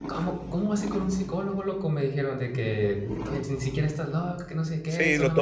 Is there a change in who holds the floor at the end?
Yes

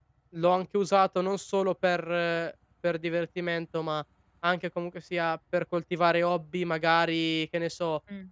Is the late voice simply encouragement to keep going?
Yes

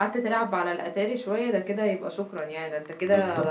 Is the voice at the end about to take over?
Yes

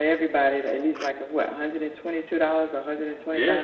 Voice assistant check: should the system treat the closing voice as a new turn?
Yes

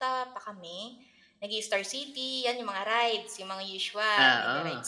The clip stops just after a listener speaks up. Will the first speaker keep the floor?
Yes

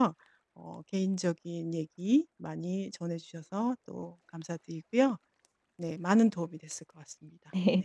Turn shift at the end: Yes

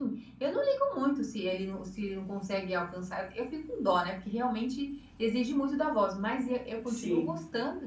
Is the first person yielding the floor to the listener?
No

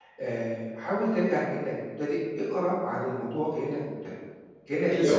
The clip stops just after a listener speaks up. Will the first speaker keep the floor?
No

